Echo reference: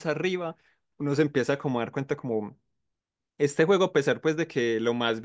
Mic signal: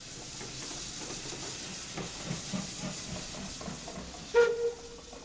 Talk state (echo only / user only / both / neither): neither